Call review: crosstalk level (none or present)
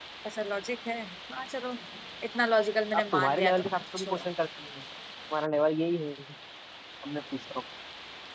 present